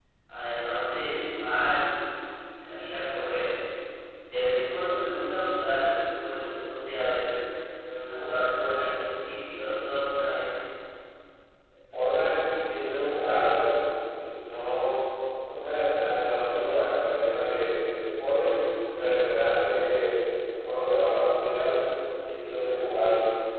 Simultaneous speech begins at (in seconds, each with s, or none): none